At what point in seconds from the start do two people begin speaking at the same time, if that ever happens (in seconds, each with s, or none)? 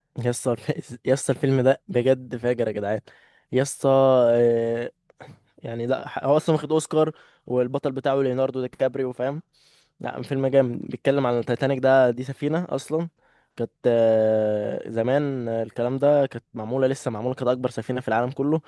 none